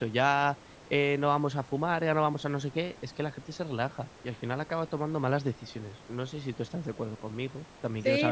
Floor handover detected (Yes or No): Yes